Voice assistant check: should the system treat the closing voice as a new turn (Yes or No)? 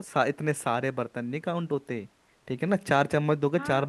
Yes